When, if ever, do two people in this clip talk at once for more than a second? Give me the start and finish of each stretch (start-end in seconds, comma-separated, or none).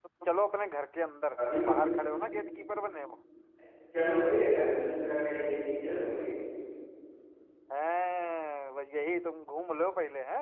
none